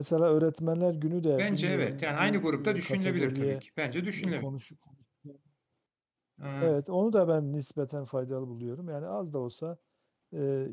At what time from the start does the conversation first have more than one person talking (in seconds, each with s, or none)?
1.4 s